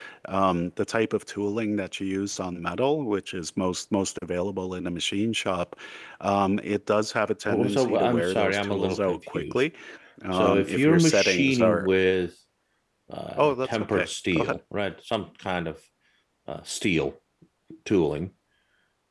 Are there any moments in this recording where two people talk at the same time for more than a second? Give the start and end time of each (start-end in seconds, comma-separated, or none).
7.5-9.6, 10.3-11.9, 13.4-14.6